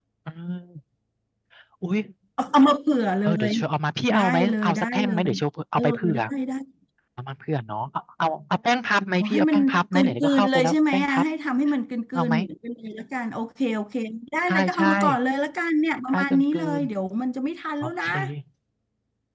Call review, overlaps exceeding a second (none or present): present